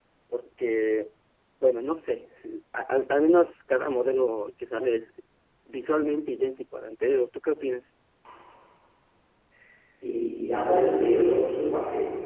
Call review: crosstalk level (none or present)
none